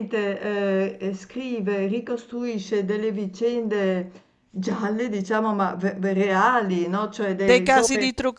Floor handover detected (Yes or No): Yes